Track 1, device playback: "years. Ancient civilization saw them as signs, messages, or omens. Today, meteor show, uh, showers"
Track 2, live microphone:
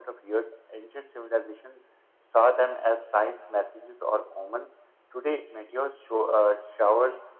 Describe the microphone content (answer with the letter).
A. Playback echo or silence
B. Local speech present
A